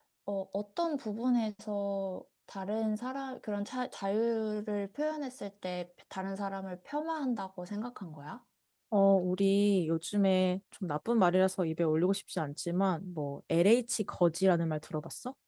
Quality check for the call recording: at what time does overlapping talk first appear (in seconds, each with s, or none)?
none